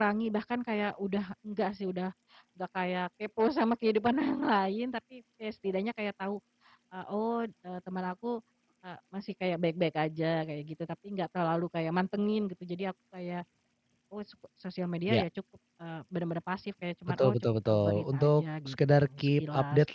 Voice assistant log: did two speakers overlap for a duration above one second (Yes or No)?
Yes